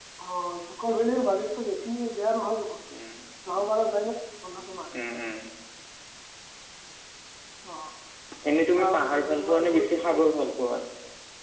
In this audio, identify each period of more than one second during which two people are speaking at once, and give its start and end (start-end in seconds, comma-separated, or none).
8.8-10.2